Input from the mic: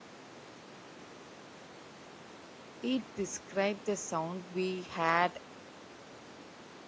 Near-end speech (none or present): present